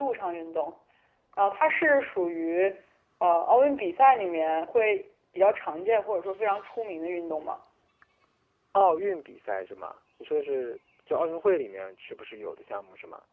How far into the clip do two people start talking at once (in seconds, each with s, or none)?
none